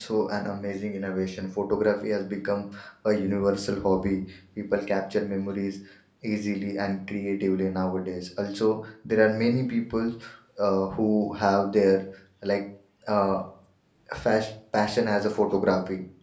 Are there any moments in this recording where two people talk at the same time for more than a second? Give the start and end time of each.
none

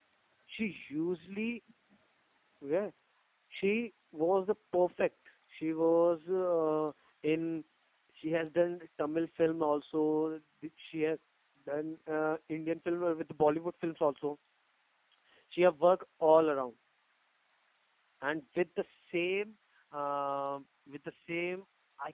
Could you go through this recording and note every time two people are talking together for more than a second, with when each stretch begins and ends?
none

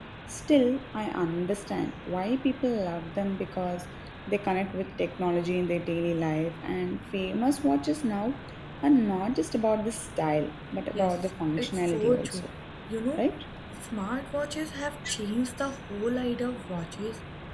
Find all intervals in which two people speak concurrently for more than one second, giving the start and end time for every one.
11.0-12.5

